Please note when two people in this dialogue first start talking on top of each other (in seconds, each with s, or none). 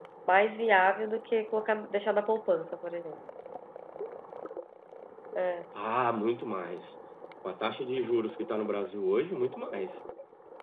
none